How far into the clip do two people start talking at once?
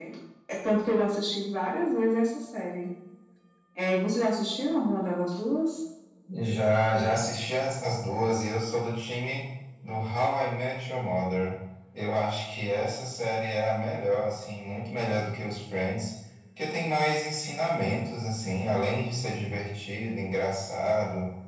none

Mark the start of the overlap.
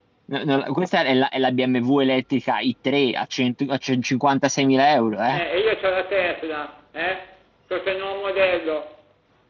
none

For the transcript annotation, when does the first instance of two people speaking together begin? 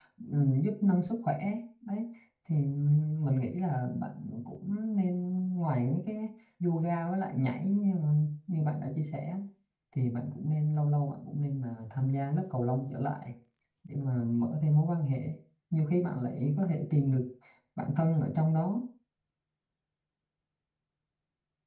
none

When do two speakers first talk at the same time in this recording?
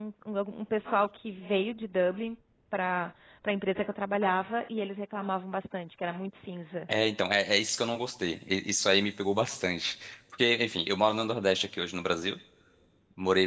none

